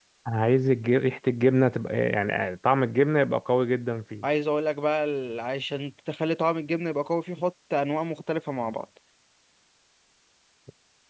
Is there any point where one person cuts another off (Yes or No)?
No